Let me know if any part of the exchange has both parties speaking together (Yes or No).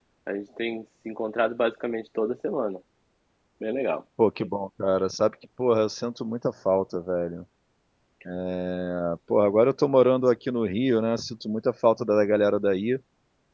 No